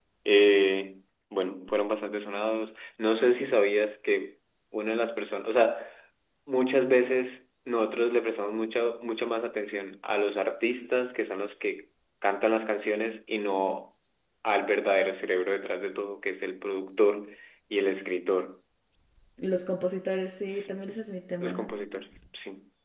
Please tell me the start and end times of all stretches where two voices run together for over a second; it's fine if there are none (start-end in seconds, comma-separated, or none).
20.5-21.7